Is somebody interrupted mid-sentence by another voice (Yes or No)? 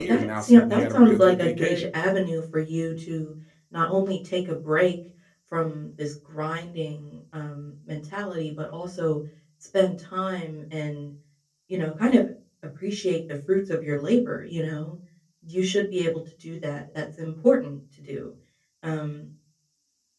Yes